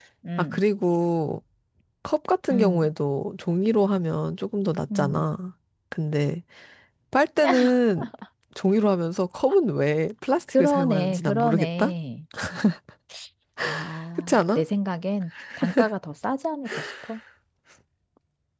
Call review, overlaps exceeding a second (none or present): present